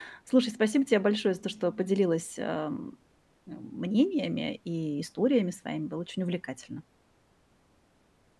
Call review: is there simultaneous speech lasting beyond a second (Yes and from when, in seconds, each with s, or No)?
No